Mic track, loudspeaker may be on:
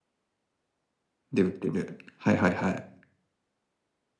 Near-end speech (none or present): present